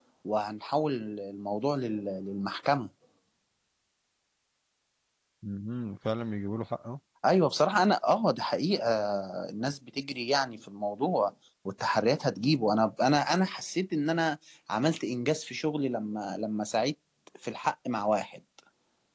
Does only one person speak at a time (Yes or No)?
Yes